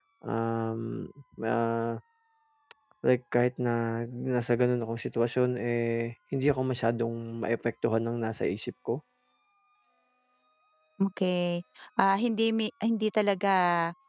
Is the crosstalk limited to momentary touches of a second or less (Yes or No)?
Yes